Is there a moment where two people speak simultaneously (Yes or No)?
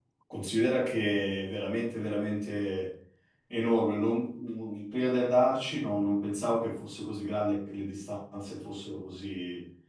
No